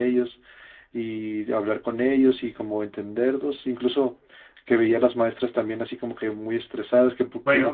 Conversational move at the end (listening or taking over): taking over